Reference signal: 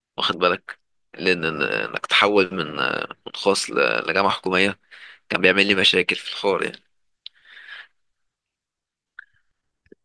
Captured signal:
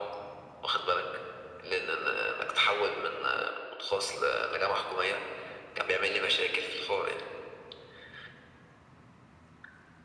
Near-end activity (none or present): none